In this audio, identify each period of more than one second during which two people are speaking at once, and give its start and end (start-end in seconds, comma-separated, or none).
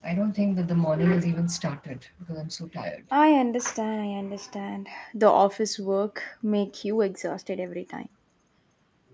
none